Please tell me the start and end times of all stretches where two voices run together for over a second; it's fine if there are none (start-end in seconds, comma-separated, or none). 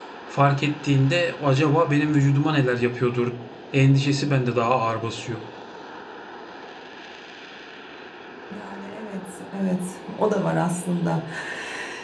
none